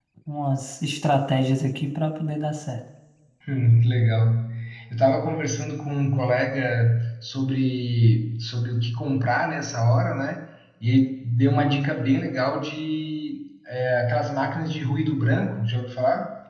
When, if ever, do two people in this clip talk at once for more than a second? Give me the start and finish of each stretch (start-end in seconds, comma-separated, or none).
none